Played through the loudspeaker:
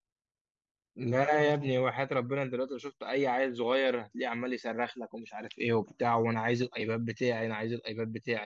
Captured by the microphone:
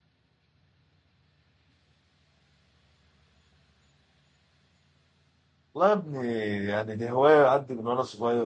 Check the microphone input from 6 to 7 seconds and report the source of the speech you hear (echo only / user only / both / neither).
user only